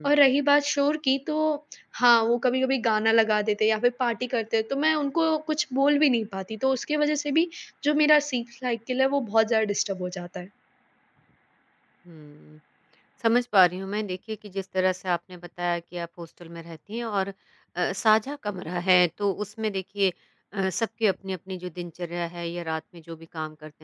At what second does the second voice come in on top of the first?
none

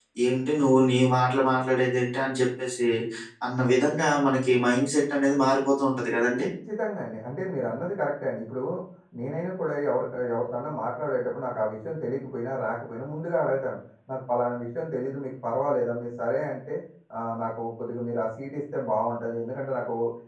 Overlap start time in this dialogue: none

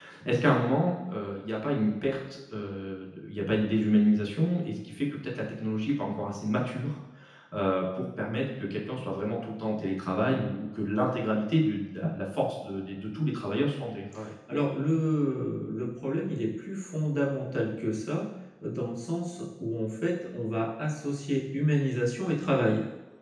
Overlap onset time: none

